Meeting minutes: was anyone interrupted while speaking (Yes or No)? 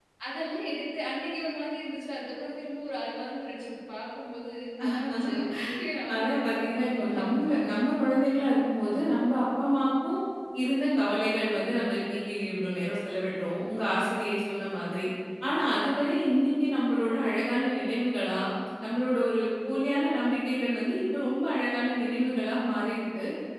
Yes